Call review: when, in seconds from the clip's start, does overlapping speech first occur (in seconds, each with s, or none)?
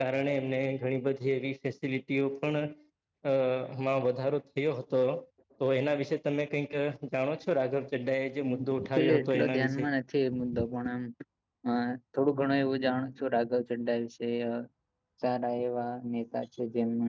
8.4 s